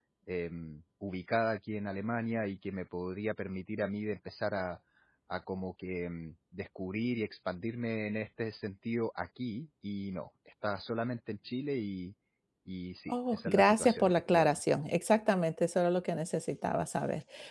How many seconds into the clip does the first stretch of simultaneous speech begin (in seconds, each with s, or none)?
13.1 s